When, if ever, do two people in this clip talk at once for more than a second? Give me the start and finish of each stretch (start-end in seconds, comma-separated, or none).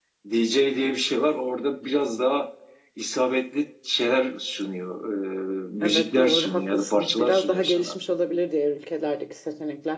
5.8-7.9